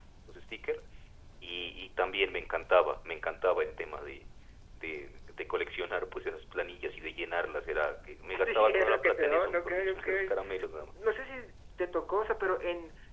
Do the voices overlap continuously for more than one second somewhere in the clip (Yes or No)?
Yes